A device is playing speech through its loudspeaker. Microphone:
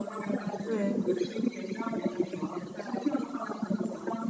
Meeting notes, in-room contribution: present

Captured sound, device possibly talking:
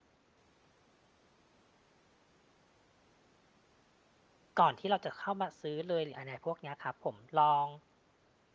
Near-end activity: present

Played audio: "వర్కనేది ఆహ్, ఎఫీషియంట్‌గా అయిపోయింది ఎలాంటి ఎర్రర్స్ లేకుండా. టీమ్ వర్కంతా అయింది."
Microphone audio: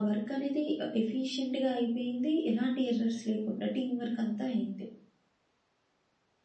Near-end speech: none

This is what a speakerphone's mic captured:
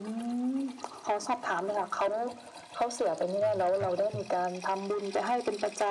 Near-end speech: present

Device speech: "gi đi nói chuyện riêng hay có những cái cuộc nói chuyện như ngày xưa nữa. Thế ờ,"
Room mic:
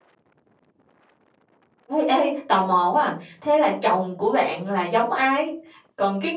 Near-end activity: present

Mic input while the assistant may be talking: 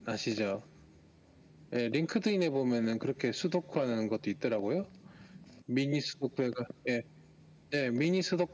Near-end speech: none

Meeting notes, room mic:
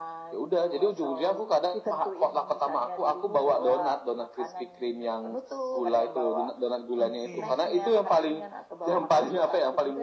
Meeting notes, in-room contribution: present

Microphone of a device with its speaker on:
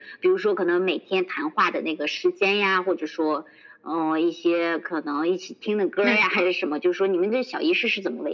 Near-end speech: present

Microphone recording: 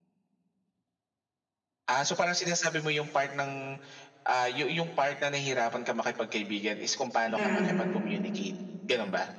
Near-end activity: present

